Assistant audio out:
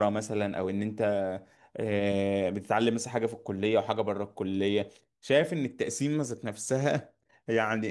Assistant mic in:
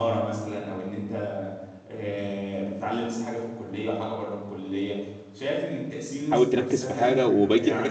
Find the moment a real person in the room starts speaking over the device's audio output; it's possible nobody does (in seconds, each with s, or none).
6.3 s